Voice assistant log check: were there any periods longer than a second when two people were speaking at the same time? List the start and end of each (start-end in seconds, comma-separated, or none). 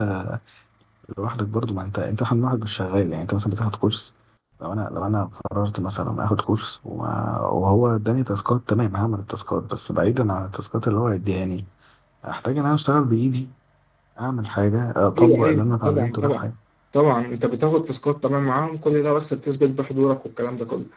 15.2-16.4